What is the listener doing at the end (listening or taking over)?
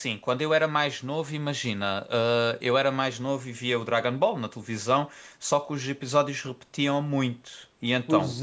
taking over